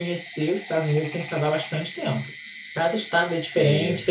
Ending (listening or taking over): listening